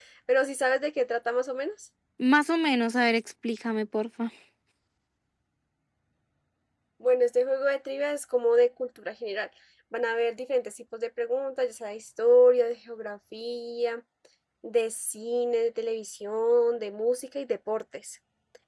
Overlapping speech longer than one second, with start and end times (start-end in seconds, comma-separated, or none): none